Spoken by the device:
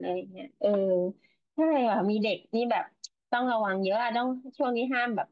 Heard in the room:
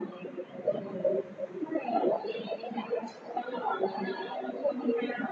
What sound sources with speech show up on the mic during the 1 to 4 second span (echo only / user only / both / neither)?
echo only